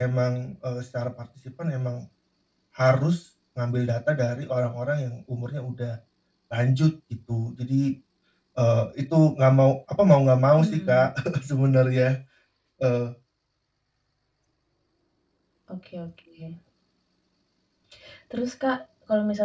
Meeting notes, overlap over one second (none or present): none